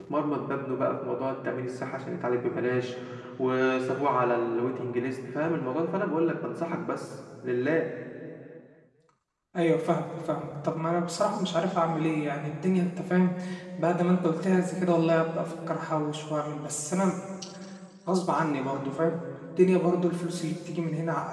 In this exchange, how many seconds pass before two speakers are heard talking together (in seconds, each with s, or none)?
none